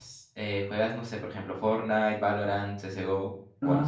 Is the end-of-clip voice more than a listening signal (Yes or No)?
Yes